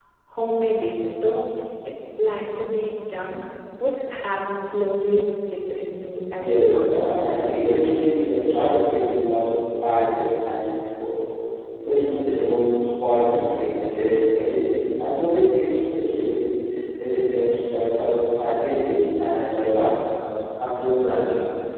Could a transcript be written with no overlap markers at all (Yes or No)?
No